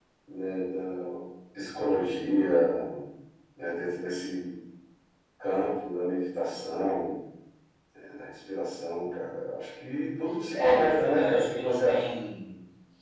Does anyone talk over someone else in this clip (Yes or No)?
Yes